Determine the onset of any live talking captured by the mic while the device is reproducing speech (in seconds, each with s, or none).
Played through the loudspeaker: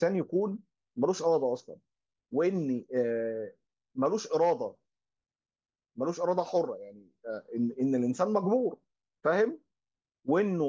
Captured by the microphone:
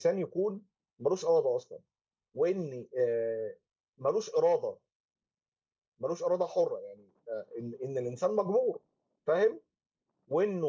none